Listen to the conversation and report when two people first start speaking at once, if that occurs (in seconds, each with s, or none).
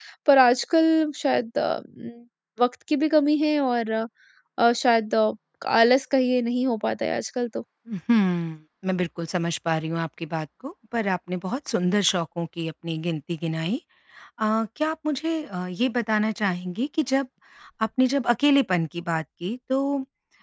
none